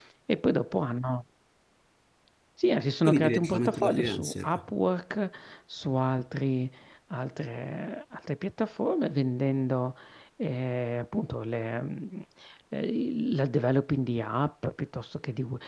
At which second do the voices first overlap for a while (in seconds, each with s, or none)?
3.0 s